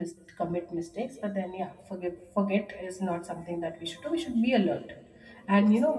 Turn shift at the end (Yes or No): No